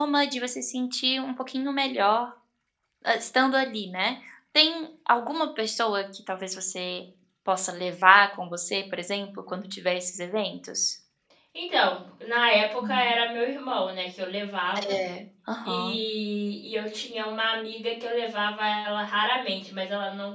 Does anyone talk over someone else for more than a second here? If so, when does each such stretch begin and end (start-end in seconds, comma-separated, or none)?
none